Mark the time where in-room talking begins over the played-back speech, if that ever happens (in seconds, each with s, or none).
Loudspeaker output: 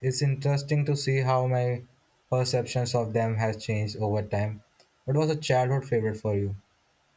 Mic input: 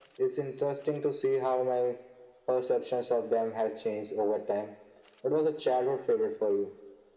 none